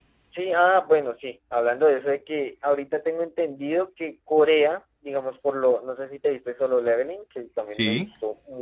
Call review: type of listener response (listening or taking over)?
listening